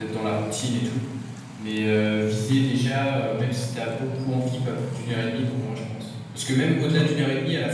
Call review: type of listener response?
listening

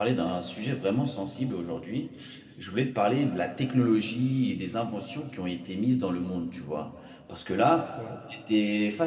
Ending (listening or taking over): listening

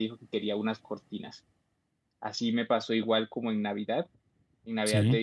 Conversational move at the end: listening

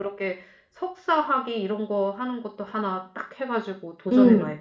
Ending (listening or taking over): taking over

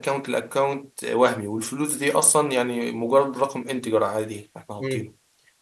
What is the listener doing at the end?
taking over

